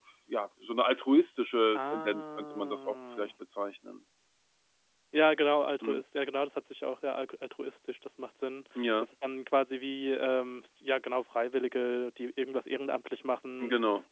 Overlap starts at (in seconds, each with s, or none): 1.7 s